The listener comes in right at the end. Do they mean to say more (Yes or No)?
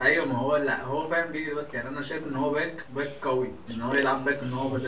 No